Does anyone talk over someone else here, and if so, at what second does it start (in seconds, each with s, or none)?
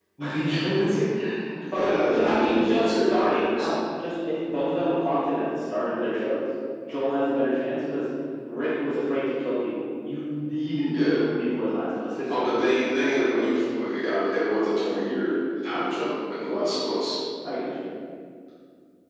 1.7 s